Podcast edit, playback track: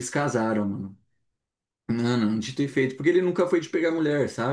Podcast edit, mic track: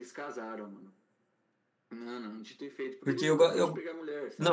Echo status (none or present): present